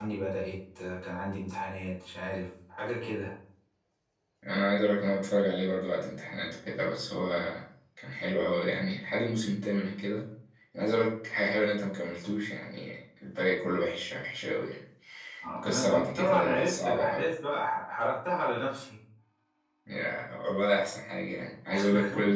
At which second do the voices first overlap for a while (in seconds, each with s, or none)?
15.6 s